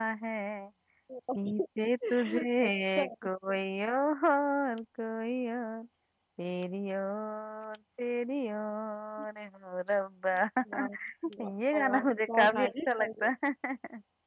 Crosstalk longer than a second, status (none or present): present